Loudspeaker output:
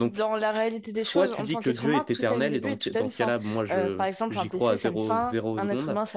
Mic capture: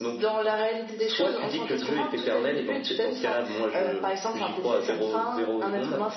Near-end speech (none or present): none